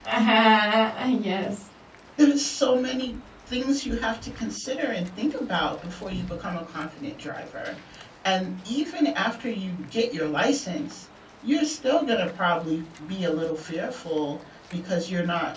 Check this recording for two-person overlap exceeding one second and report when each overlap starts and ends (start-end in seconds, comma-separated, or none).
none